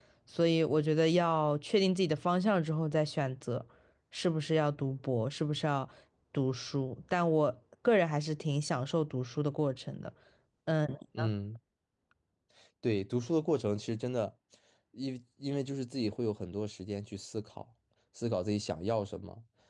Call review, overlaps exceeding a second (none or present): none